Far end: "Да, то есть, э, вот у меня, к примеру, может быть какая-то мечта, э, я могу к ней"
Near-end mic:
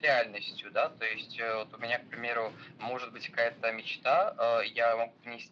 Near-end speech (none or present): none